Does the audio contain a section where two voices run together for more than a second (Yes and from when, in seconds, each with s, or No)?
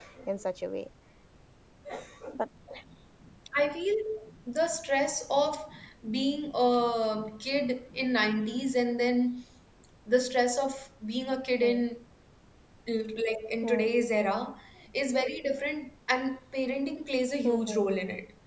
No